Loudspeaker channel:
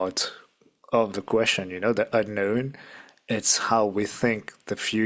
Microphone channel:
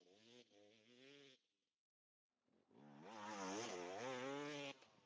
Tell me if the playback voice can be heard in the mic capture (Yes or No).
No